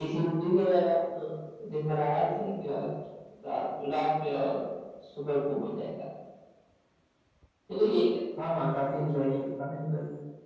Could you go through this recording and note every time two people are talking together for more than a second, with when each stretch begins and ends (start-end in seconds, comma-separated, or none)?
none